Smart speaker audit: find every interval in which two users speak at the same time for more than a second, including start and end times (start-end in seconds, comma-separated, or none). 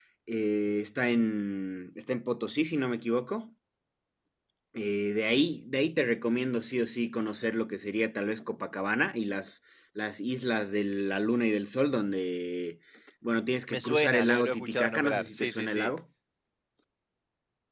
13.7-15.9